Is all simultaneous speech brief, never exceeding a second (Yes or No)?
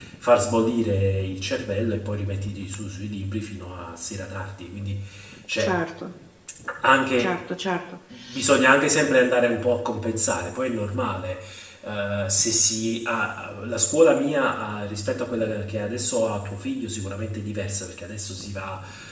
Yes